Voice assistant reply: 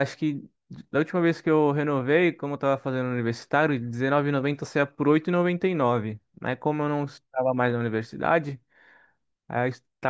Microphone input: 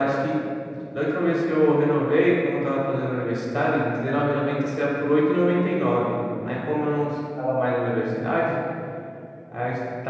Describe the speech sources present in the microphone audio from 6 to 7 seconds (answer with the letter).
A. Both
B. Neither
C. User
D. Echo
D